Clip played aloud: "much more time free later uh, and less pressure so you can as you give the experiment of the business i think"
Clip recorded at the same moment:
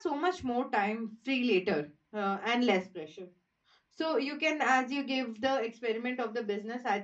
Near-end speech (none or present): none